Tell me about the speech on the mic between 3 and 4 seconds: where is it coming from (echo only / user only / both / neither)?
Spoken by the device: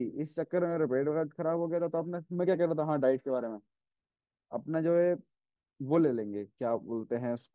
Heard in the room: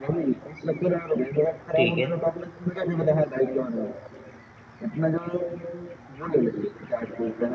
echo only